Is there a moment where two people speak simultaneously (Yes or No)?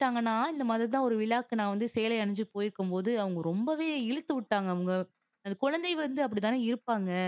No